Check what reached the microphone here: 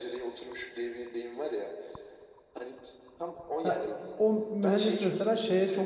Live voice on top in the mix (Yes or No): Yes